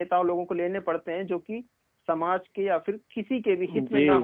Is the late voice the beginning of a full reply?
Yes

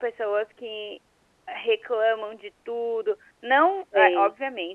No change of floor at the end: Yes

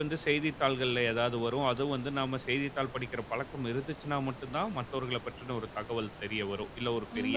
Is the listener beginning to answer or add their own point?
Yes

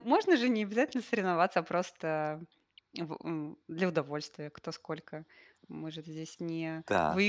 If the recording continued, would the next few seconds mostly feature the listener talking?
Yes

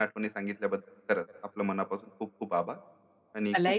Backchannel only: No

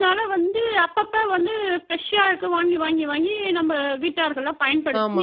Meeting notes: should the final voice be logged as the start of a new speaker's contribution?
Yes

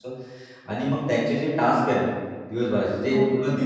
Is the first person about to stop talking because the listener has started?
No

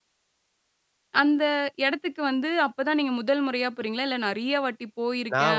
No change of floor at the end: No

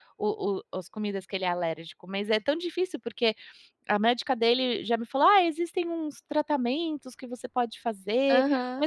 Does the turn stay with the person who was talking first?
Yes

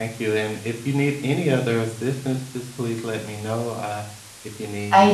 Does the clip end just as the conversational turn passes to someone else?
Yes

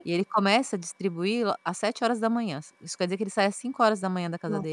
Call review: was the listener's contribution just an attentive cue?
No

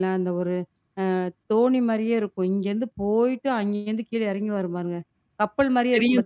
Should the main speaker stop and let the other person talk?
Yes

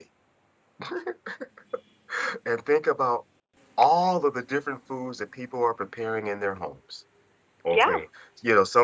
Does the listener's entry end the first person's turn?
No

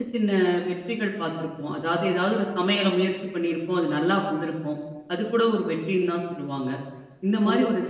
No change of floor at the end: Yes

